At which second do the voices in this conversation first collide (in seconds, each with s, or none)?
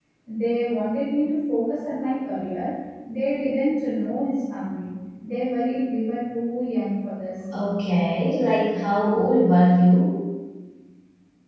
none